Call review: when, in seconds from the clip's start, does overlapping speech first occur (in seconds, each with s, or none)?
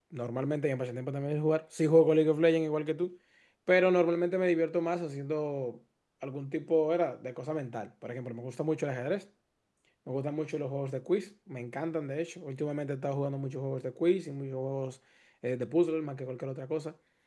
none